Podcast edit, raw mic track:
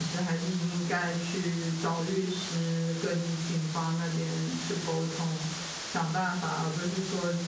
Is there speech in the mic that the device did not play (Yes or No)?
Yes